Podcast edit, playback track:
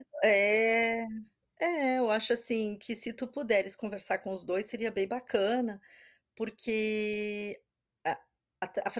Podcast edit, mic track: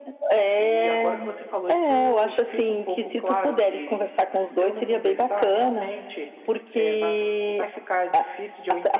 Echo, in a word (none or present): present